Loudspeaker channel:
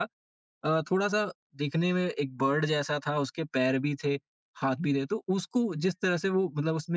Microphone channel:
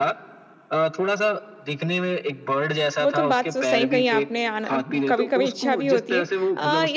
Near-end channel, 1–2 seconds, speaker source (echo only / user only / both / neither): echo only